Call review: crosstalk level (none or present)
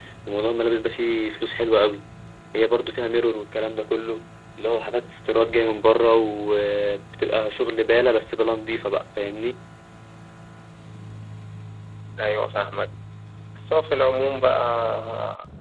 none